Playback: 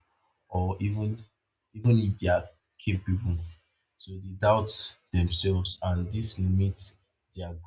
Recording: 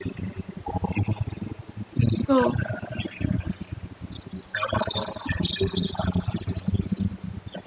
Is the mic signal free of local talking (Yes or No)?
No